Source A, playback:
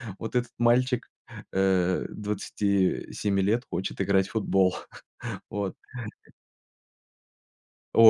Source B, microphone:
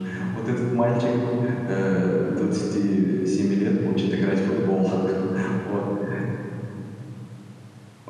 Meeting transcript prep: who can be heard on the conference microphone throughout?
echo only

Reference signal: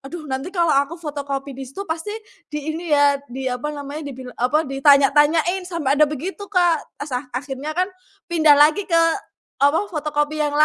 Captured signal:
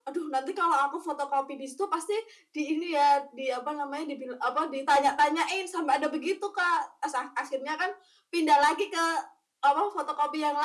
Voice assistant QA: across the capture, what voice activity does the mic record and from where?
echo only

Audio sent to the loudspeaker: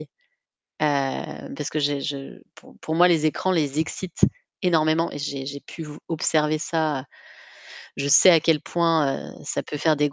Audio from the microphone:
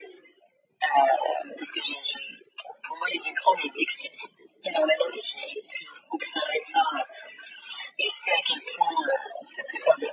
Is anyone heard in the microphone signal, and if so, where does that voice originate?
echo only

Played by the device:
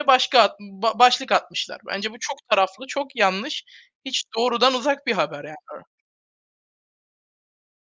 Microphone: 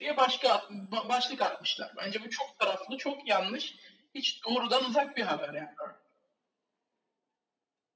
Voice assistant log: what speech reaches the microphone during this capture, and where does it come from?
echo only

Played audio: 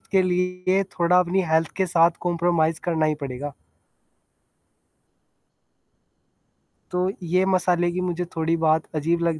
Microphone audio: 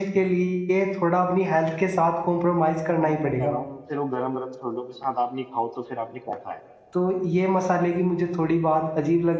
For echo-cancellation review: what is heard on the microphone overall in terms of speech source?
both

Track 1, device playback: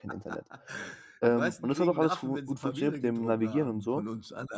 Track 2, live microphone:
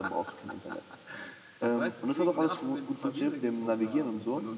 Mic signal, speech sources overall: echo only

